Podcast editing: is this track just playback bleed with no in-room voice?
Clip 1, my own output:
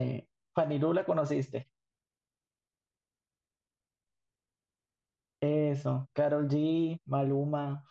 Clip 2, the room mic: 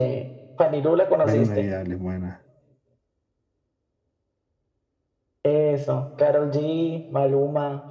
No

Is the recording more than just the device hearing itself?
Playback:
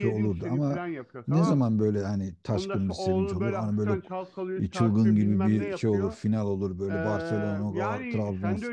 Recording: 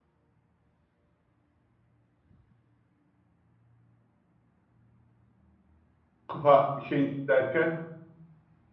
Yes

